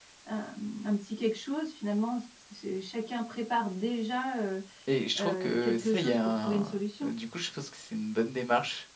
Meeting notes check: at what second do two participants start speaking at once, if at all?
5 s

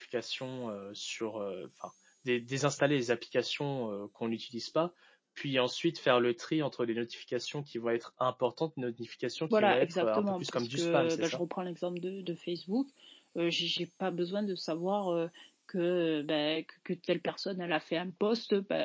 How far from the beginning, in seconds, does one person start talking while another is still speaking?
10 s

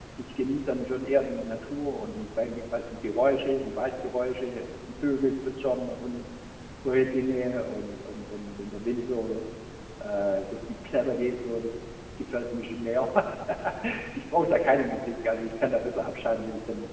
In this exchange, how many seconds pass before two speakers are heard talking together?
none

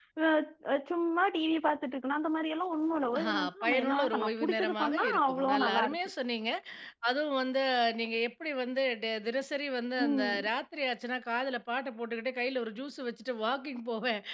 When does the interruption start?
3 s

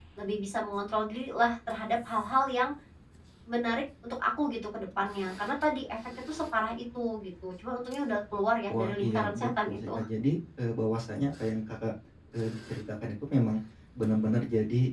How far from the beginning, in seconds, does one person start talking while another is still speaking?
9 s

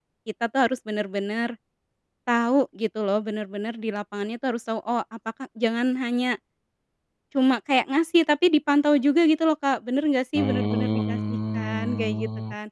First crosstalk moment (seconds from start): 10 s

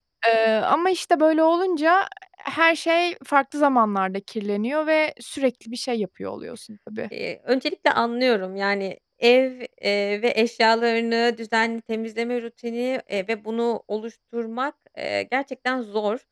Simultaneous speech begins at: none

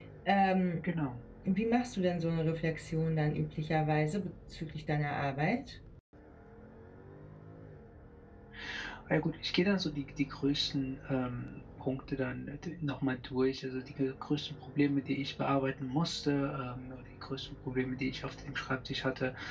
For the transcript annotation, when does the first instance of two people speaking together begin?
none

